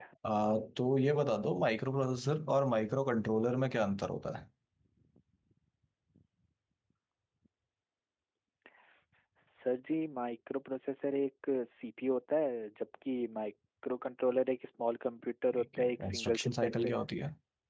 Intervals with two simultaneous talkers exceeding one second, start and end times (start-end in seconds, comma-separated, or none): 15.6-16.9